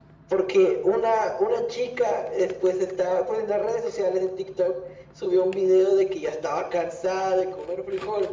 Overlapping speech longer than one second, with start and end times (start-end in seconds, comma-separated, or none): none